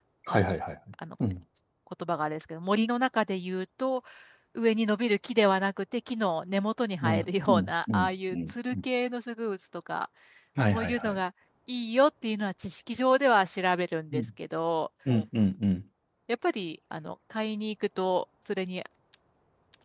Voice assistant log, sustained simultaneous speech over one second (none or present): present